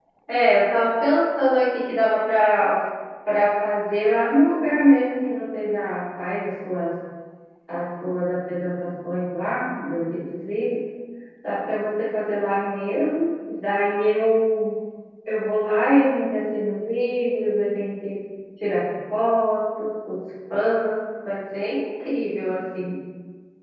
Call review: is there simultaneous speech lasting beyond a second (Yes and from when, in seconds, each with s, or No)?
No